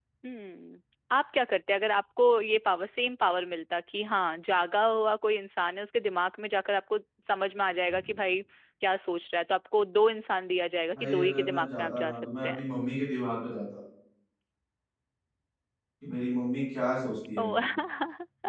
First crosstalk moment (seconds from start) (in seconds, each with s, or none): 10.9 s